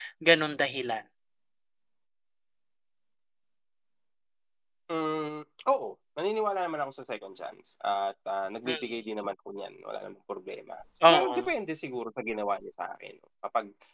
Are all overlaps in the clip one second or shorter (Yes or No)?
Yes